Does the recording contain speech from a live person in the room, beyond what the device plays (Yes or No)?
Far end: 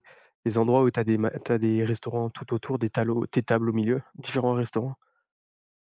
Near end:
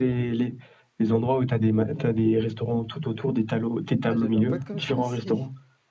Yes